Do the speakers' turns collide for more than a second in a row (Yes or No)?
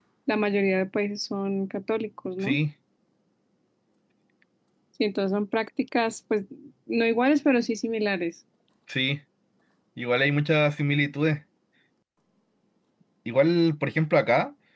No